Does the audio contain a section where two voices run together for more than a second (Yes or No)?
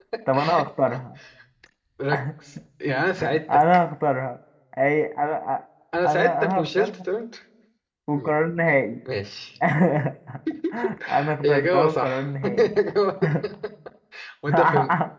Yes